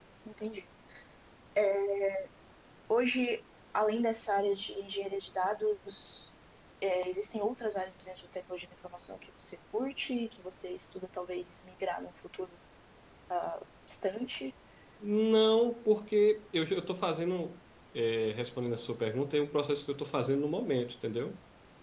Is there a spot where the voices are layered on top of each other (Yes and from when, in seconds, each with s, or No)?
No